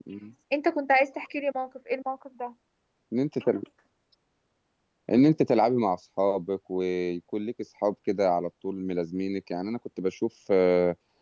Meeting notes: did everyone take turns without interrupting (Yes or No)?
Yes